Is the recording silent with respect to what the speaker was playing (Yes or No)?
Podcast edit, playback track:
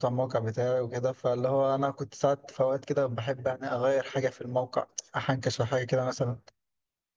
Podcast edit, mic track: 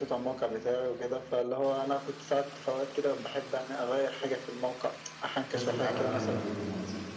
No